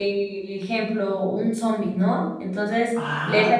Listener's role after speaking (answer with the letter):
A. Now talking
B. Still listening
B